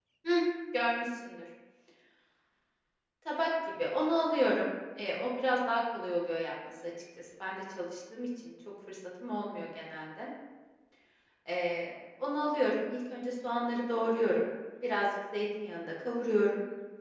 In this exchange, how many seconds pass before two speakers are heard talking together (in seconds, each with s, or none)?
none